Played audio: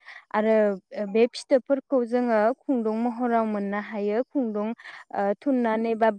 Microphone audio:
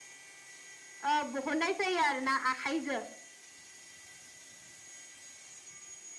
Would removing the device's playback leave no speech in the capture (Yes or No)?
No